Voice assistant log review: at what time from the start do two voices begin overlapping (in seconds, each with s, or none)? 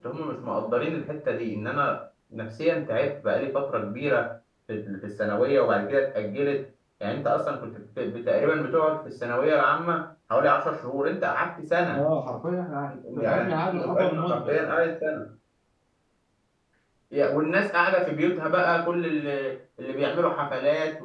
12.9 s